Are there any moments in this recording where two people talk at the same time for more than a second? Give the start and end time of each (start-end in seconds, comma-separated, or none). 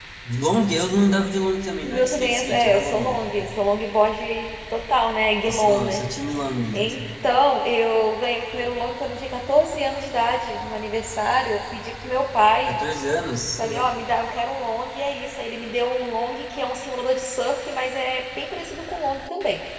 1.8-3.0